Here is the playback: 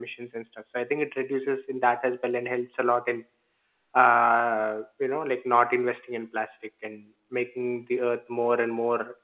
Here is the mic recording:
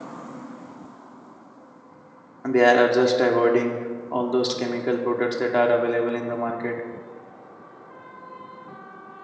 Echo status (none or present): none